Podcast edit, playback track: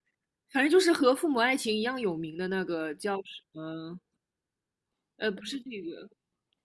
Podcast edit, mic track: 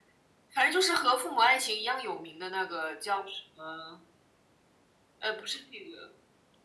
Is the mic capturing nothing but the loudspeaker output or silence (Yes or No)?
Yes